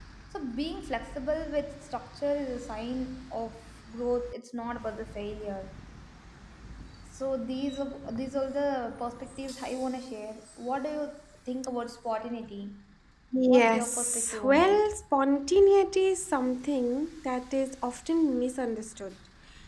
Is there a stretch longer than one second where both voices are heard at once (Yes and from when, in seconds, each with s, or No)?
Yes, from 13.5 s